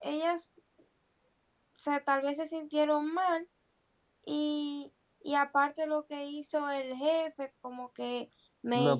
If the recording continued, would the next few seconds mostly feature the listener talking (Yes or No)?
Yes